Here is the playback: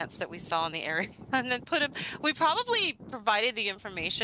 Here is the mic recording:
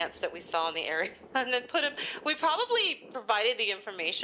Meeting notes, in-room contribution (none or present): none